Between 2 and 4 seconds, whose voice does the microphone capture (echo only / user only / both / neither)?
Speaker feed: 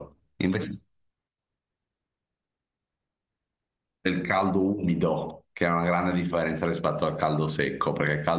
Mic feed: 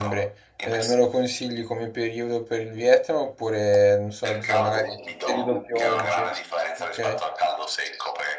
user only